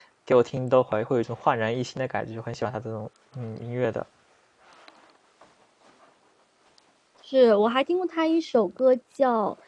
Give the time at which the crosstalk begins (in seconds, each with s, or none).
none